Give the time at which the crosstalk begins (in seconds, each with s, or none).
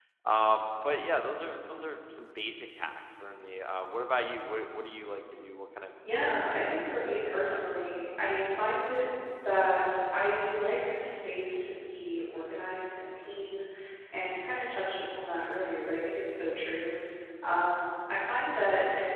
6.0 s